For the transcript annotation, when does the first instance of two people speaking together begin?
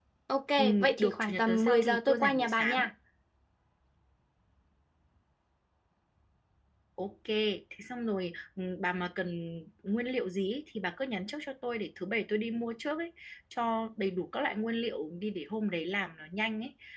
0.6 s

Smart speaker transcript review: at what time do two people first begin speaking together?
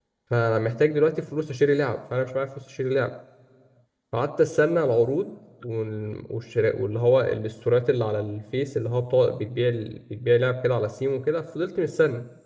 none

